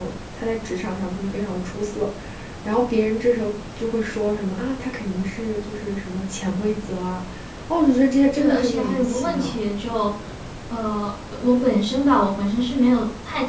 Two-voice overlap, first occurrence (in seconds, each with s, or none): 8.3 s